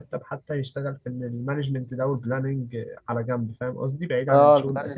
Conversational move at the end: taking over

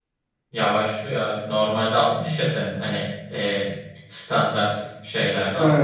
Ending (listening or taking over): listening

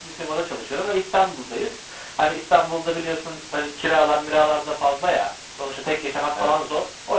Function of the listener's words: listening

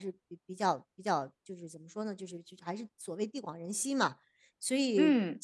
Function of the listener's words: listening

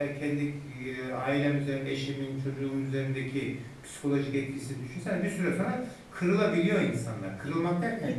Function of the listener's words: listening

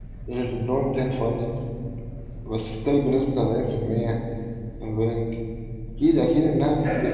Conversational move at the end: taking over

